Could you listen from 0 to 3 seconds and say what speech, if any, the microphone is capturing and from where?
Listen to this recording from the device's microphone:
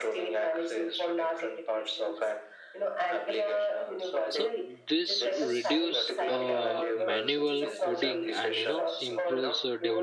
echo only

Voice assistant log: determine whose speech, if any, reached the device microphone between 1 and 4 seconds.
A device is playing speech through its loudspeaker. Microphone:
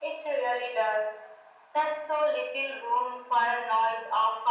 echo only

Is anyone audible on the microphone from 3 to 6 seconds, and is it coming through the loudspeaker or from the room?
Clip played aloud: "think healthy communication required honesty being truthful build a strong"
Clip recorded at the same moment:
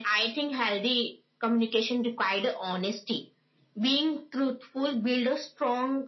echo only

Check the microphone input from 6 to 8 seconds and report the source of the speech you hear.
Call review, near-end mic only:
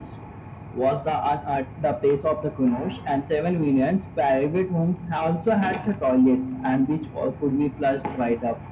echo only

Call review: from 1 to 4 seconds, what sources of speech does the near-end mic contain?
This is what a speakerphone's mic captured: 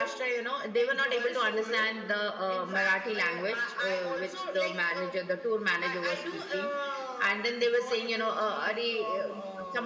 both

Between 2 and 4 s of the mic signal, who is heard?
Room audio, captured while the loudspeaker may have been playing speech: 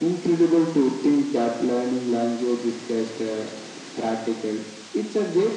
echo only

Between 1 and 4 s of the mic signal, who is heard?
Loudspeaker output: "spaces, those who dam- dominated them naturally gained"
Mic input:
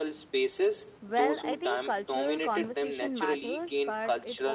both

